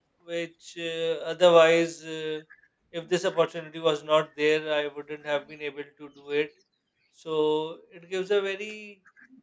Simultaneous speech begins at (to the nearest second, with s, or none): none